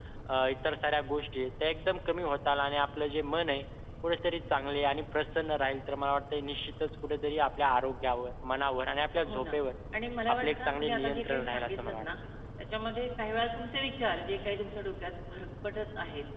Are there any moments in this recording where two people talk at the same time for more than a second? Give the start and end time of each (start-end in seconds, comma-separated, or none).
10.3-12.0